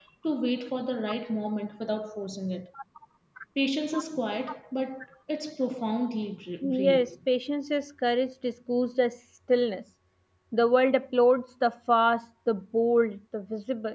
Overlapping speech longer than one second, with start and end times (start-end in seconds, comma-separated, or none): none